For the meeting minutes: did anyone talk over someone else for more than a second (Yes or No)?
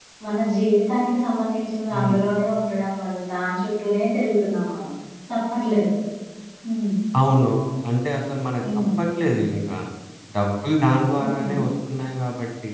No